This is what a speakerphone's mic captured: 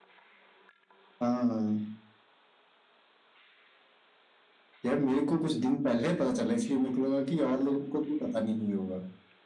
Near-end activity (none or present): none